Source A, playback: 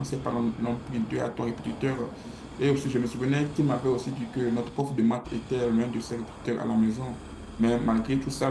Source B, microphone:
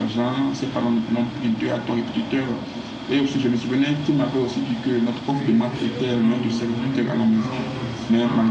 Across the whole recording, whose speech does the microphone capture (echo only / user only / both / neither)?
both